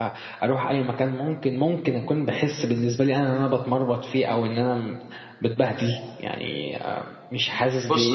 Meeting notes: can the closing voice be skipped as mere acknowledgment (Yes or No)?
No